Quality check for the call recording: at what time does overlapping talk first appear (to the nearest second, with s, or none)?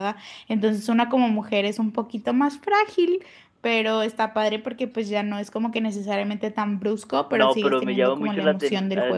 7 s